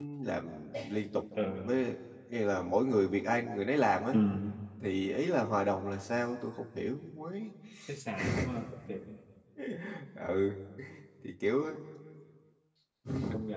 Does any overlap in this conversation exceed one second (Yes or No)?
No